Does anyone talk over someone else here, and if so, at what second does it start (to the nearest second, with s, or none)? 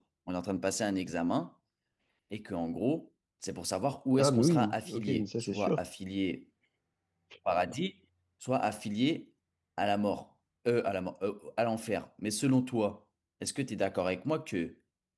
4 s